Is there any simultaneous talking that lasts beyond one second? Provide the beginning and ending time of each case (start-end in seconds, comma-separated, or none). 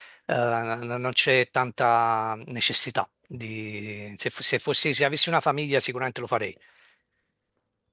none